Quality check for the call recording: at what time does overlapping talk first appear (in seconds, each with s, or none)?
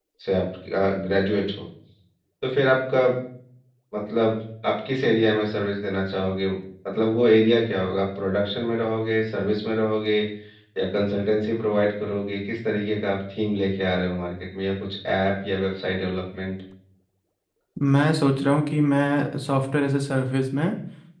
none